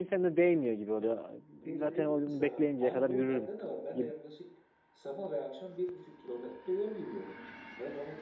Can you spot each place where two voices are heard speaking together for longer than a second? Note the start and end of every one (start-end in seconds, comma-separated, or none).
1.8-3.5